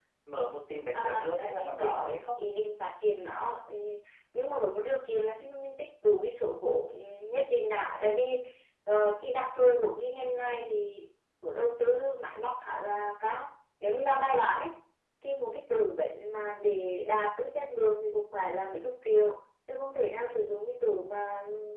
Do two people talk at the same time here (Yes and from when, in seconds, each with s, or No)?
Yes, from 0.9 s